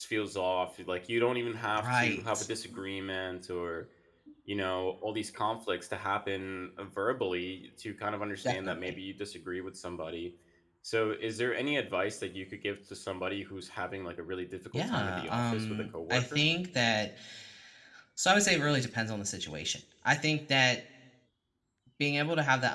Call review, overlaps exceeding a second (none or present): present